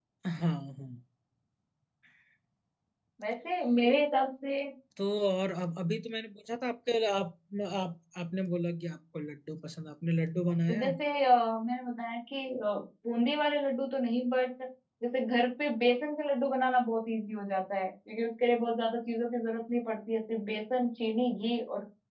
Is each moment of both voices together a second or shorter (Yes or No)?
Yes